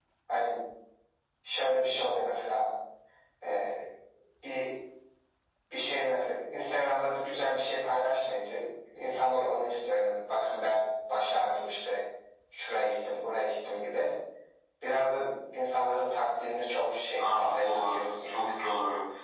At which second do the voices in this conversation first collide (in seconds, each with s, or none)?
17.2 s